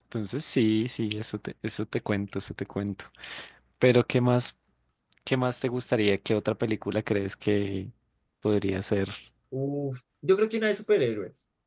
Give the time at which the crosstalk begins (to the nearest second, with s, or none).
none